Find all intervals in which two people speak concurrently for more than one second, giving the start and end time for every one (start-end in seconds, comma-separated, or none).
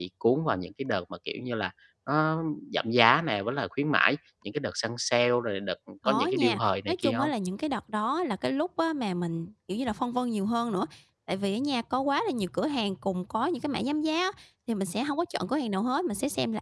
6.1-7.3